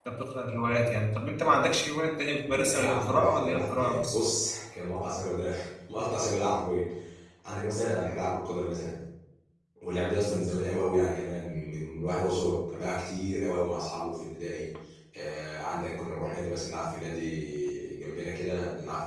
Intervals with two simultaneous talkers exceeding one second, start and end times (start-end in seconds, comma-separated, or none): 2.7-4.2